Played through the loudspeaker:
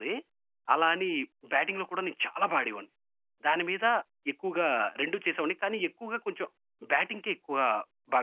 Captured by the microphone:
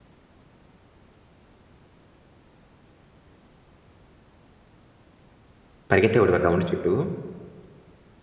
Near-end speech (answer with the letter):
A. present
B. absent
A